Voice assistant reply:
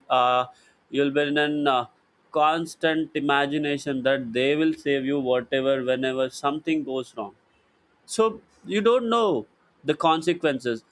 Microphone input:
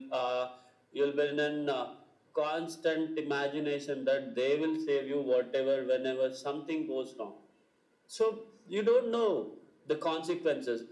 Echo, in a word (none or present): present